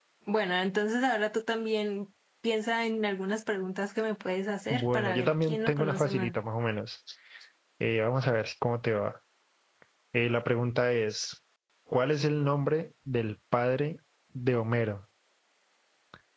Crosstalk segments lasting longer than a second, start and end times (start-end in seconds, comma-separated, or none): 4.7-6.3